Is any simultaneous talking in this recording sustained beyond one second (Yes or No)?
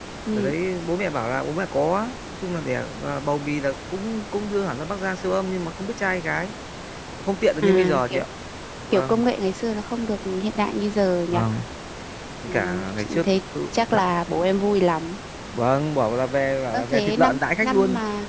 Yes